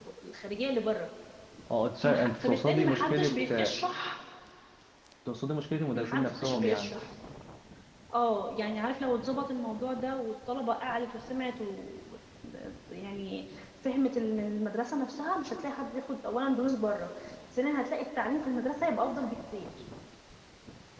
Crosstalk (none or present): present